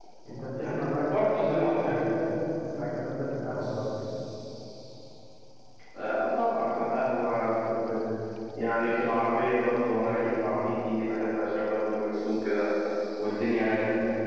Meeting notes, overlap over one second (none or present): present